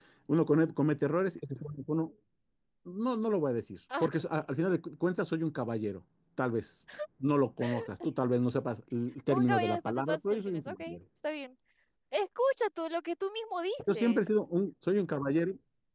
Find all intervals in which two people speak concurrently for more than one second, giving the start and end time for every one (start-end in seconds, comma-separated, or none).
9.3-11.0